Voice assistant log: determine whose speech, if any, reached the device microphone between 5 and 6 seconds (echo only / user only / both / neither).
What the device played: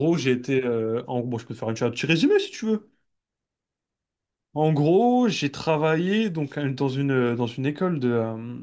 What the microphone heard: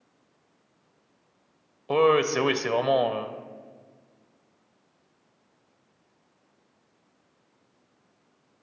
neither